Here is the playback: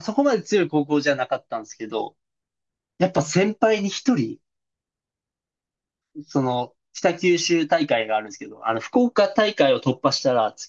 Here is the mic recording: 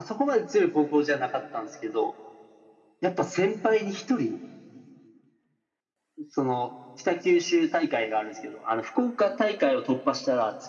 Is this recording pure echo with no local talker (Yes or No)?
Yes